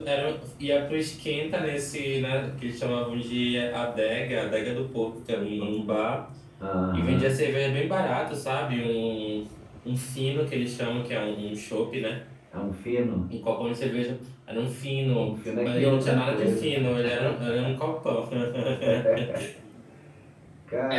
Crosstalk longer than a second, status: present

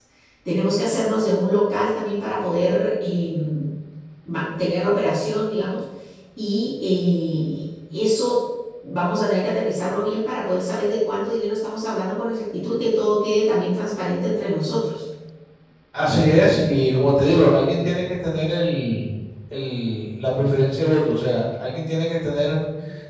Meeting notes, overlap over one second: none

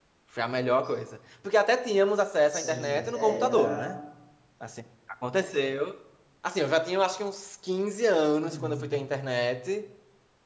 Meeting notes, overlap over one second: present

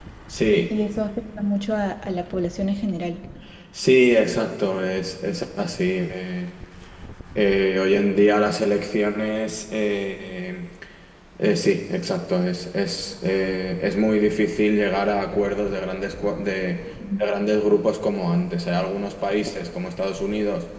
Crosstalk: none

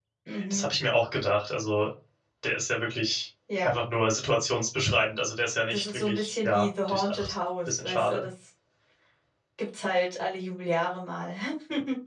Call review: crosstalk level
present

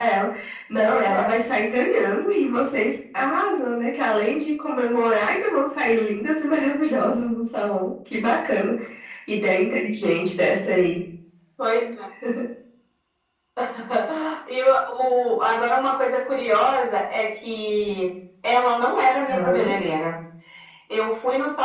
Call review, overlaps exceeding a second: none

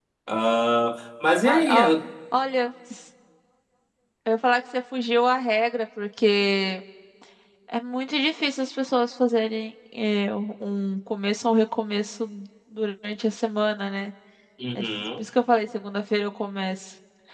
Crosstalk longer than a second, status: none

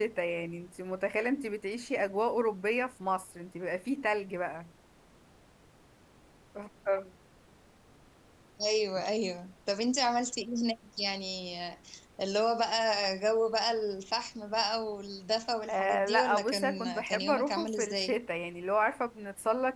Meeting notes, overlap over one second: present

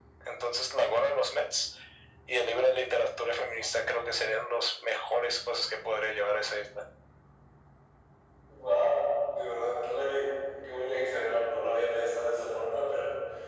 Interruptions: none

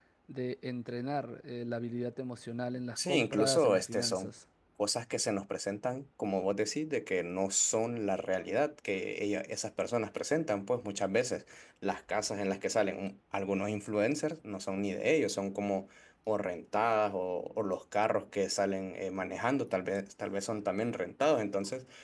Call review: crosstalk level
present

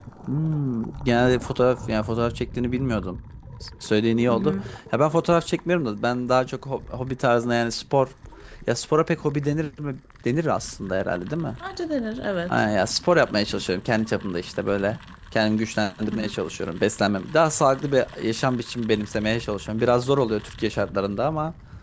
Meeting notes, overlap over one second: none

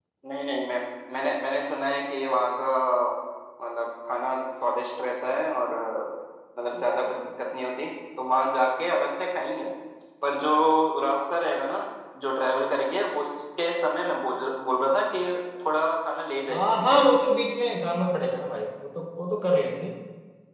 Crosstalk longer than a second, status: none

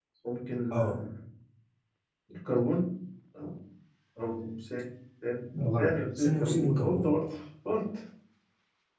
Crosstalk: present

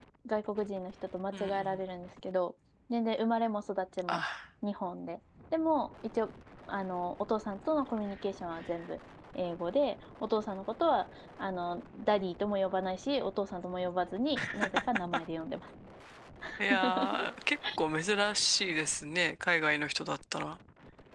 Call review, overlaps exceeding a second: none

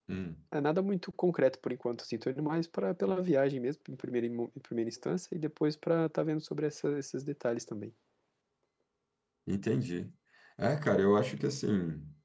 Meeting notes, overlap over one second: none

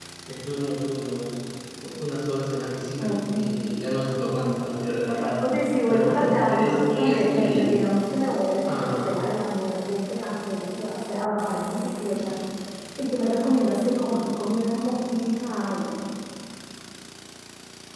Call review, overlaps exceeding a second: present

